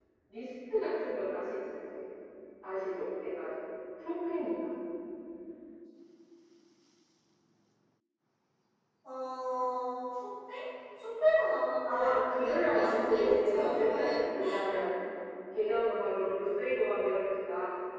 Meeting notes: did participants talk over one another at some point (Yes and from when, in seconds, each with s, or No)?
Yes, from 11.8 s